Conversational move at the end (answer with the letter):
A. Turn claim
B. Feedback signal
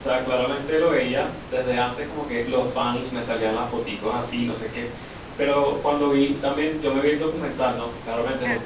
B